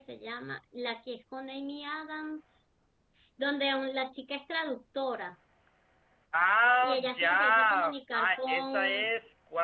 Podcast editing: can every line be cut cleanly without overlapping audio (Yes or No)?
No